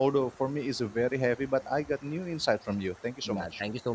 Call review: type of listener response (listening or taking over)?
taking over